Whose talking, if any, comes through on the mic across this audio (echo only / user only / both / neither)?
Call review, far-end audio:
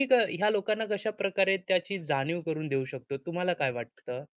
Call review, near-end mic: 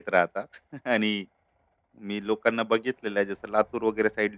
user only